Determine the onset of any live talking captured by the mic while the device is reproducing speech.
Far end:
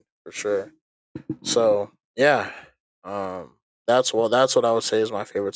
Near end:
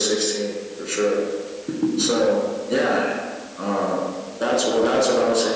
none

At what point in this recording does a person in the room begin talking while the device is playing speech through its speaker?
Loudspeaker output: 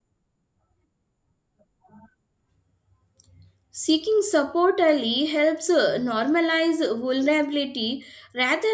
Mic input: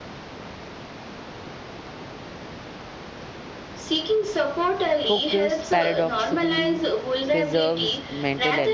5.0 s

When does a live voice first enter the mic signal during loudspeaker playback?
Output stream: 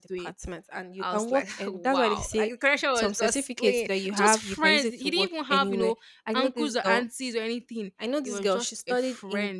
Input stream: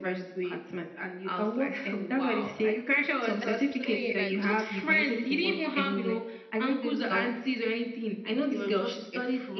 3.4 s

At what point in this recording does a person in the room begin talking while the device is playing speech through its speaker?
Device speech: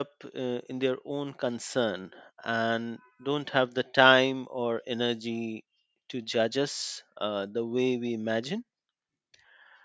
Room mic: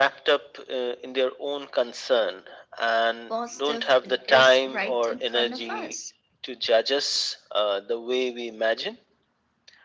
3.3 s

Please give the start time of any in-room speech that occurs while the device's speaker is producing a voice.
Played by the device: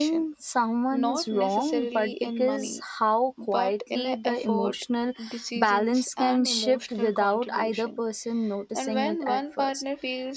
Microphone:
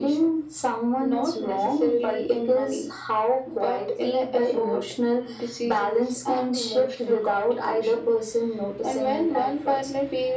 none

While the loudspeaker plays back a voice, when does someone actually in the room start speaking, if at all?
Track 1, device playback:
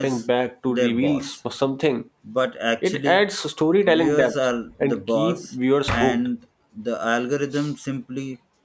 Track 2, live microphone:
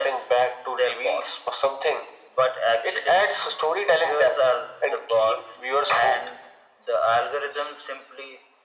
none

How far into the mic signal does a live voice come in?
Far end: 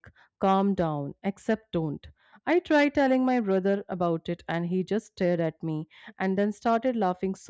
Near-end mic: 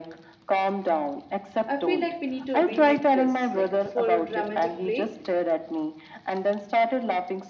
1.7 s

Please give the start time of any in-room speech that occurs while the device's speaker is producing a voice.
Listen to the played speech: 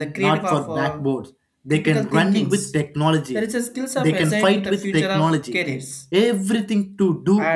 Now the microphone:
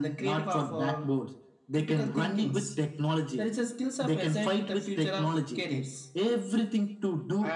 none

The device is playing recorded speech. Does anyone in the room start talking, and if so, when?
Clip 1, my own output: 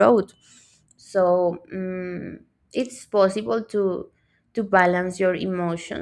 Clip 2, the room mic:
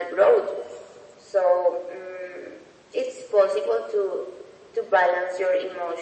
none

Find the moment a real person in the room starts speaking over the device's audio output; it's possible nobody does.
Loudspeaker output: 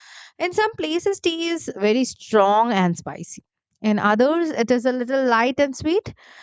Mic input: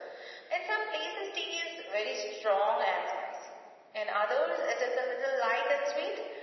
none

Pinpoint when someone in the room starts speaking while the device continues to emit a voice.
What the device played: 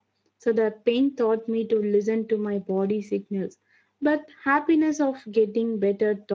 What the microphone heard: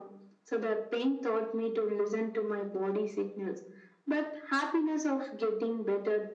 none

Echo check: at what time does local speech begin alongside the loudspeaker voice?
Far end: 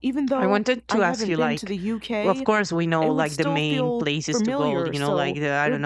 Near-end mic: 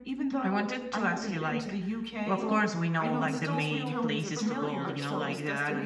2.4 s

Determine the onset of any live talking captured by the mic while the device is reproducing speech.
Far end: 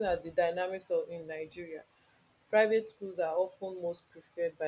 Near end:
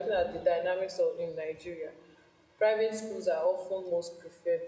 none

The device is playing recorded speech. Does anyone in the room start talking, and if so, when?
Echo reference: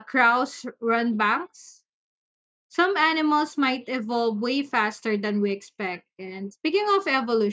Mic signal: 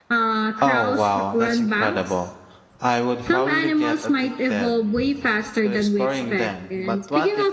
0.6 s

